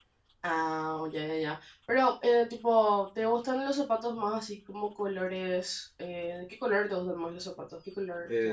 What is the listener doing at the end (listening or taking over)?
taking over